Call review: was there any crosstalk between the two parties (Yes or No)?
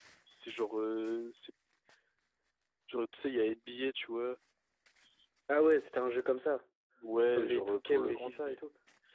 Yes